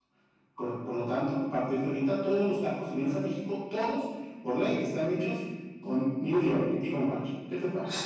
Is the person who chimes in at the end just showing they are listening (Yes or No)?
No